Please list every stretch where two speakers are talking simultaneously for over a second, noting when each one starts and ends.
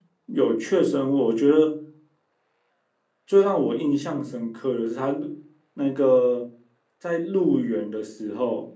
none

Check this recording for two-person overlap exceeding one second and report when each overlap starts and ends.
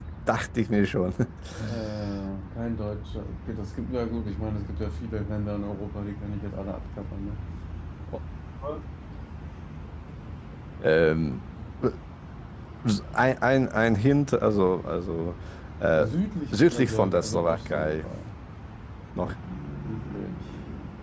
16.5-18.1

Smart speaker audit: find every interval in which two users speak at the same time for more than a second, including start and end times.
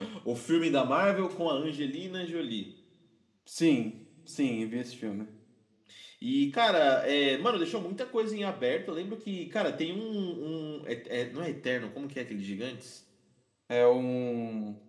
none

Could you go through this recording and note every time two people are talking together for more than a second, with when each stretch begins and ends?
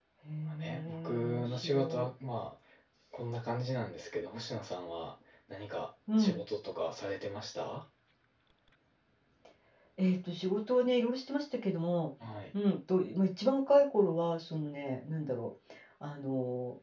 0.6-2.1

